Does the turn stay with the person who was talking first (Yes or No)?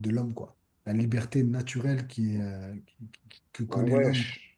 No